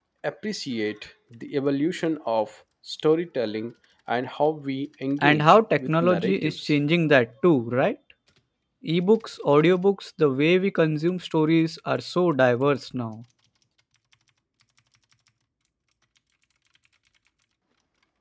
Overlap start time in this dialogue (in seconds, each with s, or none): 5.2 s